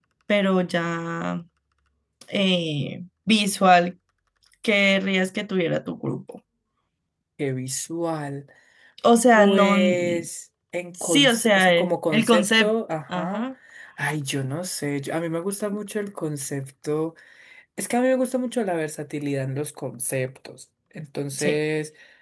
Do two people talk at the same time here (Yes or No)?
Yes